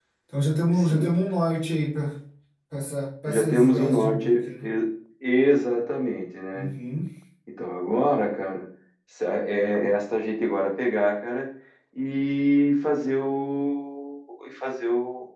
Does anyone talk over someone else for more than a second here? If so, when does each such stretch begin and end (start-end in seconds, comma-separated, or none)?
3.2-4.7